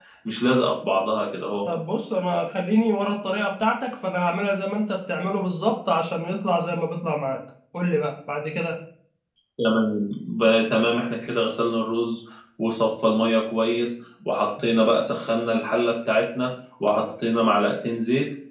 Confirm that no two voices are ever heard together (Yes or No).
Yes